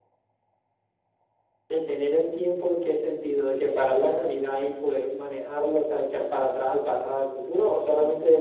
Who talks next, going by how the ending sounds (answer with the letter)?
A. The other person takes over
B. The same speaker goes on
A